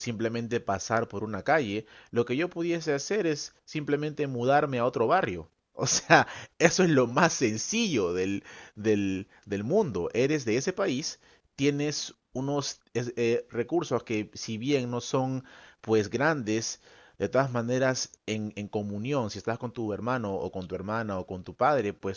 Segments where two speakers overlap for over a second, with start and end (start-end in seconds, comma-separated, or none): none